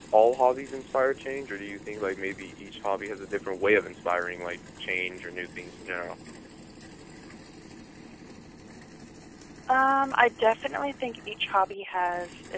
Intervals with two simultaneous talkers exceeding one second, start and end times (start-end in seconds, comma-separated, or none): none